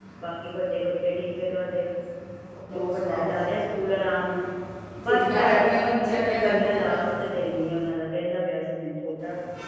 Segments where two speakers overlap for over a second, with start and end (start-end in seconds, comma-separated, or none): 5.1-7.0